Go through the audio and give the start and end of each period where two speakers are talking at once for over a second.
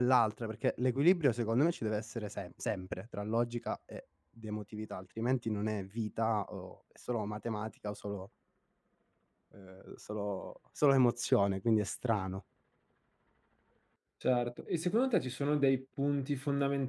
none

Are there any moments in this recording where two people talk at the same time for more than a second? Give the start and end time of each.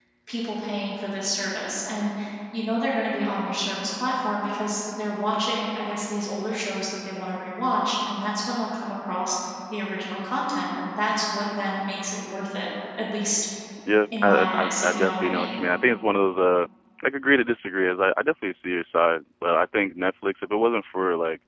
14.1-15.5

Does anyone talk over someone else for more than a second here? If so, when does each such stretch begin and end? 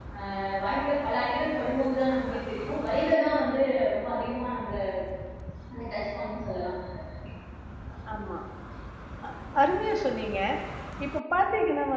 none

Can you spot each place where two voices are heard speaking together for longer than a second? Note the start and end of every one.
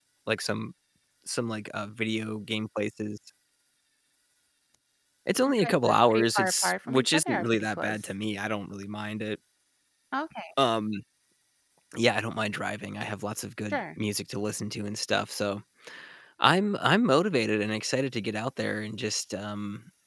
5.6-8.1

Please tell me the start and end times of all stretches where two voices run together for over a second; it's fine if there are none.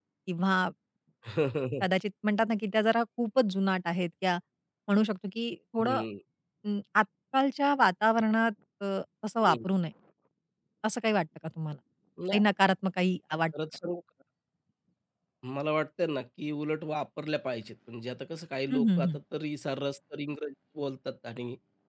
none

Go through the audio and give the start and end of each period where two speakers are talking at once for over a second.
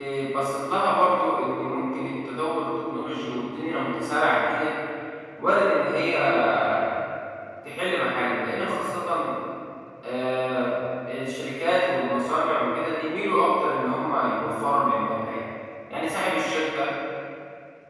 none

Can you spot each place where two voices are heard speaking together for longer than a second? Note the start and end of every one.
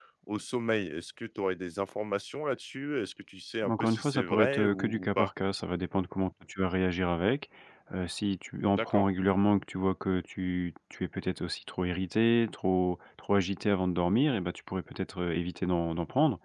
3.6-5.3

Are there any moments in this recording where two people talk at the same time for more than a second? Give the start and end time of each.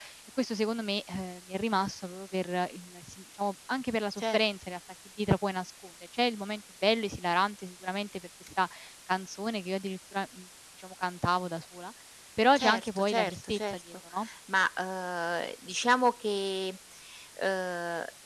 12.6-13.8

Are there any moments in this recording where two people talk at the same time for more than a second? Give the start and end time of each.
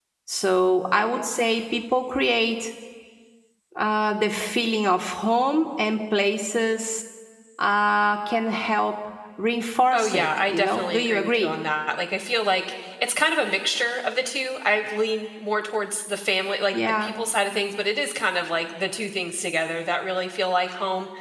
9.9-11.5

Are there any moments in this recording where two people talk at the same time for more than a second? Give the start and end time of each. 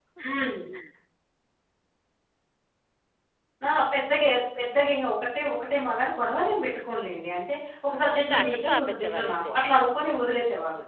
7.9-9.5

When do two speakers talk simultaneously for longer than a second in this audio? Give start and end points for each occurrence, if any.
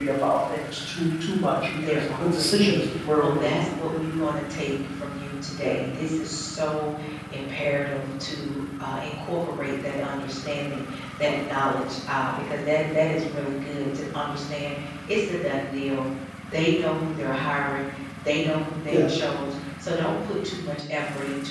1.8-3.7

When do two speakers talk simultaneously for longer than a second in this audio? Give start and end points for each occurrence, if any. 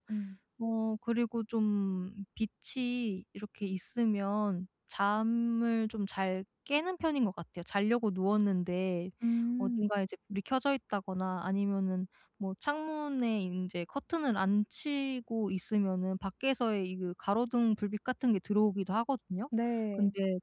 none

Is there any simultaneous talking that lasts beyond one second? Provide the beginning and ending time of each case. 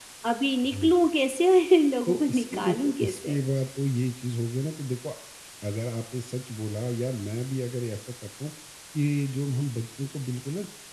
2.1-3.4

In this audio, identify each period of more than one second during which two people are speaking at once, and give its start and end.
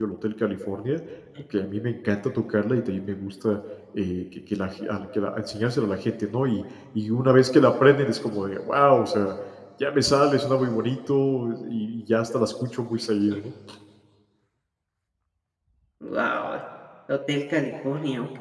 none

